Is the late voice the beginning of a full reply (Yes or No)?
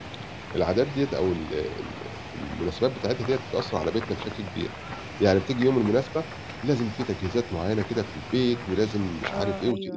No